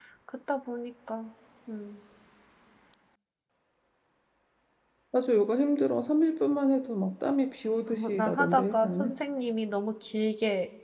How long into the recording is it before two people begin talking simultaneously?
7.9 s

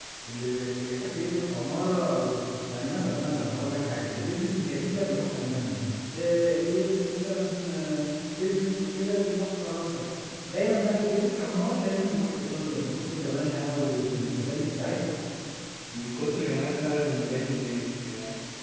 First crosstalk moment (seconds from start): none

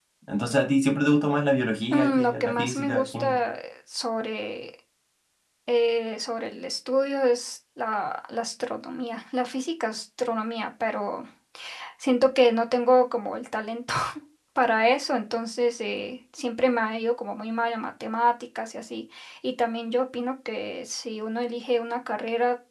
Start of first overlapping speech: 1.9 s

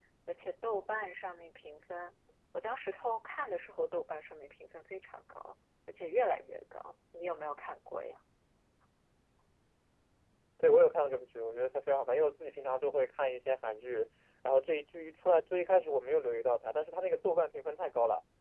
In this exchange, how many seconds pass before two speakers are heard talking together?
none

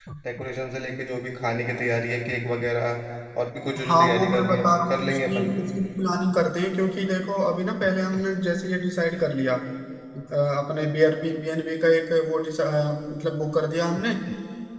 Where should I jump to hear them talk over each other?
3.9 s

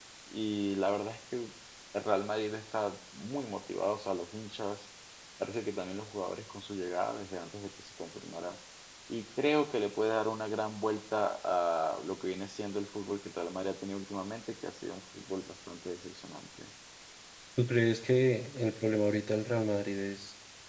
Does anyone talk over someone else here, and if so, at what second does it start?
none

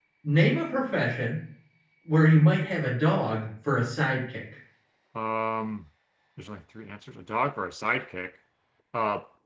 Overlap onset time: none

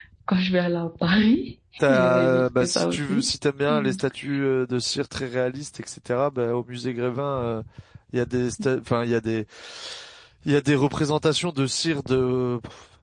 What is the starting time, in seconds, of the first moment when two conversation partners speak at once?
1.8 s

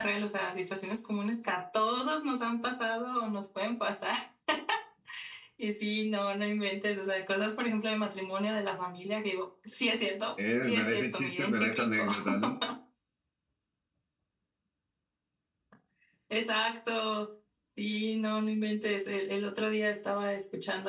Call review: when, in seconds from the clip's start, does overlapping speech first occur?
10.4 s

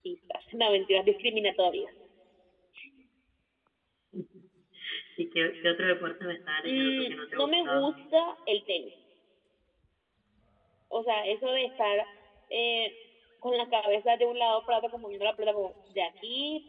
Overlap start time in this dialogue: 6.6 s

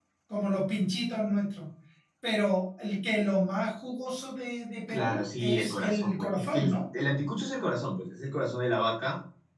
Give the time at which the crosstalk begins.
4.9 s

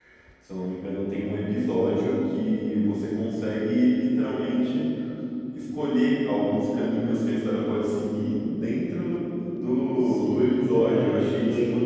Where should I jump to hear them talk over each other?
9.9 s

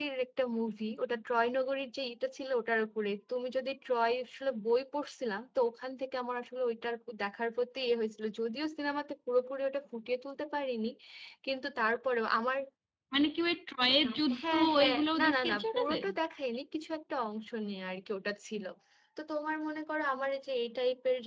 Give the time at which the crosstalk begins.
14.4 s

